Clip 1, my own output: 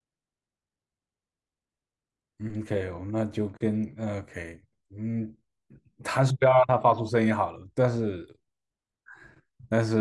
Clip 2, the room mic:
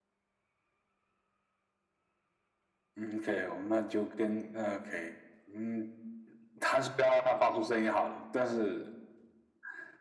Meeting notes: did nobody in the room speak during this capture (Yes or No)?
Yes